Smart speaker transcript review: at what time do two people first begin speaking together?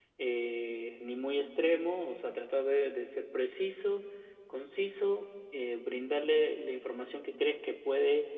none

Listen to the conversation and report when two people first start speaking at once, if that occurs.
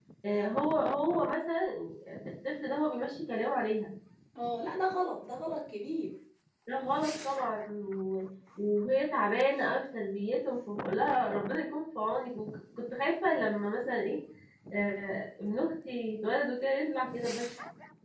none

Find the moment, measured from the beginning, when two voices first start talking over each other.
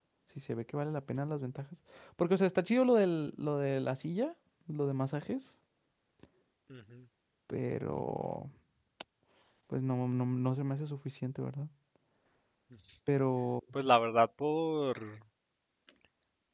none

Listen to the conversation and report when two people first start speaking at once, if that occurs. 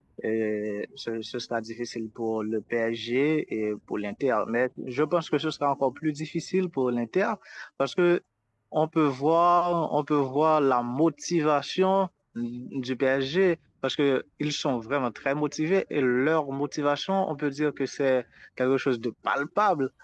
none

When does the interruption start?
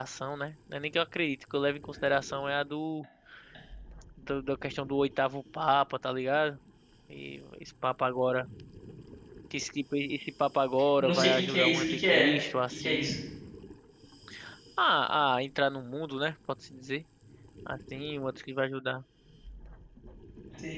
11.0 s

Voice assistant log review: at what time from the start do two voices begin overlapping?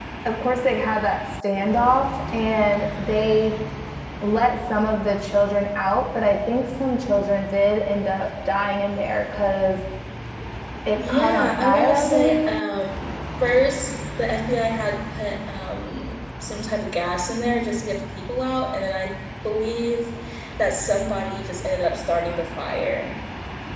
10.9 s

